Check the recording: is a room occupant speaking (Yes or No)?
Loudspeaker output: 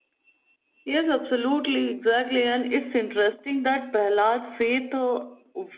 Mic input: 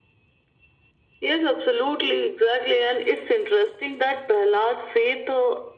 No